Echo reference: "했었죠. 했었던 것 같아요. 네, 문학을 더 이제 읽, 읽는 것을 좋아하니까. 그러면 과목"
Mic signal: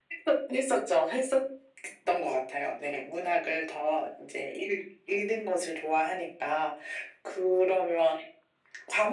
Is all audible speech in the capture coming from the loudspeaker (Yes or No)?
Yes